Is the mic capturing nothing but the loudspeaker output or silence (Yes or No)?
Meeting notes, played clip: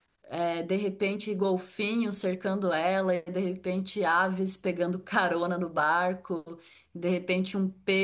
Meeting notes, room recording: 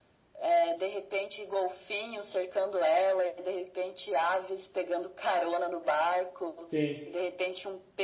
No